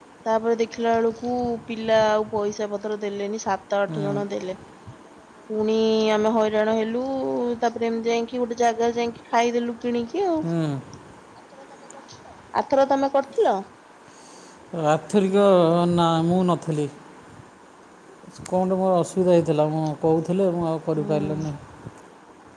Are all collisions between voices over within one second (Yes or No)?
Yes